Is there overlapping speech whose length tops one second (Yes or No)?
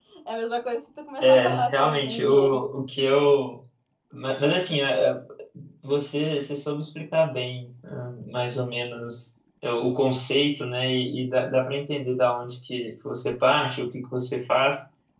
Yes